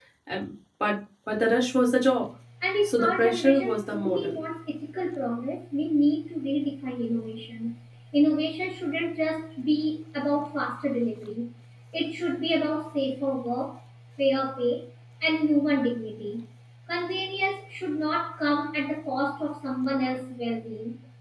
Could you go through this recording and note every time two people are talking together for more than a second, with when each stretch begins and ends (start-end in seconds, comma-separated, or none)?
2.8-4.4